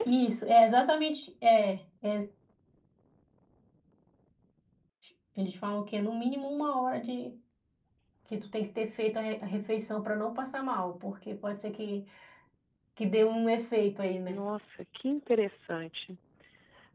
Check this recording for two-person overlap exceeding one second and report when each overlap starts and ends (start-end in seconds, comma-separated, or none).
none